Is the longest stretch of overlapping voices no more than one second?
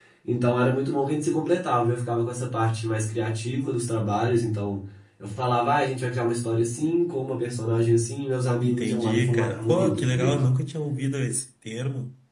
No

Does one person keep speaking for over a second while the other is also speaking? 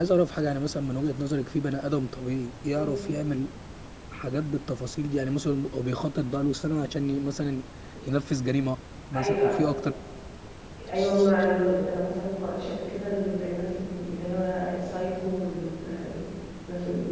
No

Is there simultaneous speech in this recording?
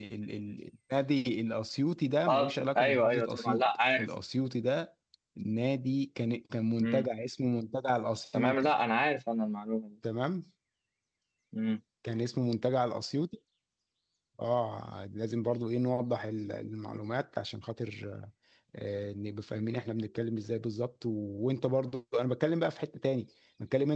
Yes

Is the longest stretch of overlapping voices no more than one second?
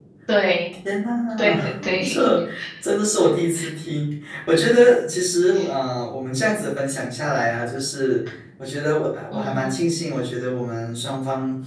Yes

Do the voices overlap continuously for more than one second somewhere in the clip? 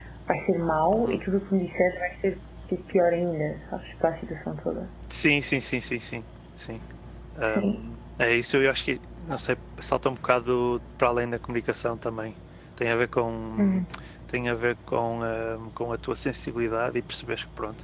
No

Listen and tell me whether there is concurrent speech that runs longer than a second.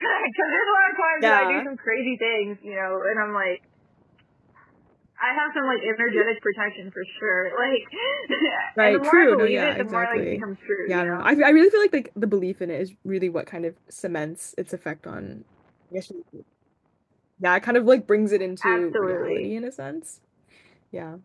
Yes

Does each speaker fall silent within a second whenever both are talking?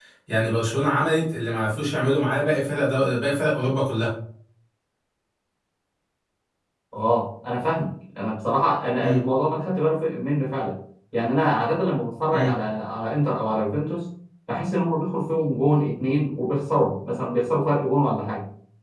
Yes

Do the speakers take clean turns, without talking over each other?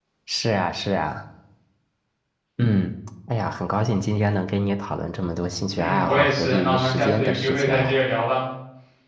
No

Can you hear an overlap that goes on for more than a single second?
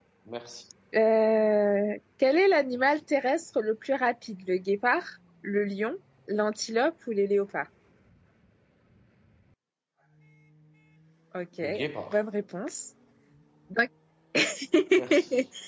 No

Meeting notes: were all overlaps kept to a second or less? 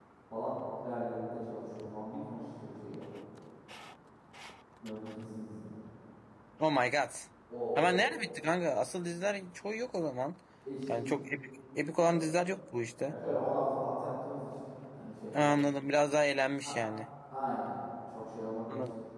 Yes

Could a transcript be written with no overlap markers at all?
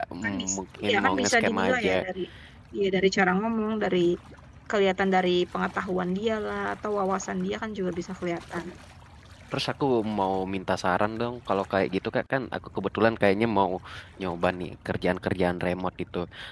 No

